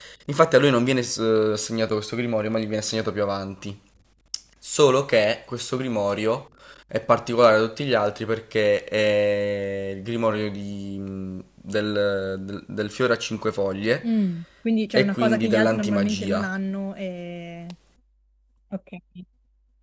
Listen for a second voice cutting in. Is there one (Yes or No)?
Yes